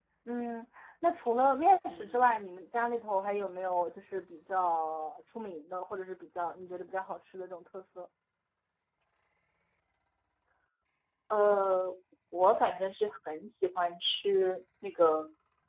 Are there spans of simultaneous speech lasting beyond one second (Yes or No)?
No